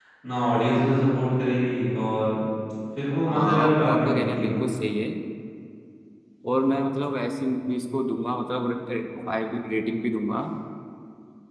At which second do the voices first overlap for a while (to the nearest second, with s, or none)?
3 s